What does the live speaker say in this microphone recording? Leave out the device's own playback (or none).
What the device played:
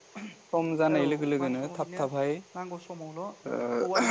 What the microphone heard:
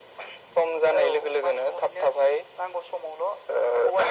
none